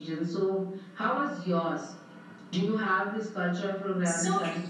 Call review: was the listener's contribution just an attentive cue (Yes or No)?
No